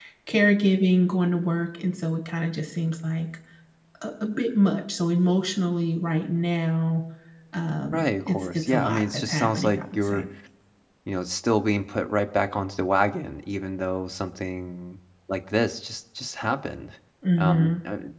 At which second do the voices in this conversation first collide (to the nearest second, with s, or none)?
8 s